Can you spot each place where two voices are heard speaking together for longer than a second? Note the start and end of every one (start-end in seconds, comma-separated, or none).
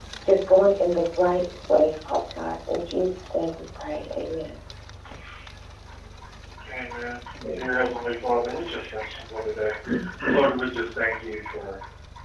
7.6-9.1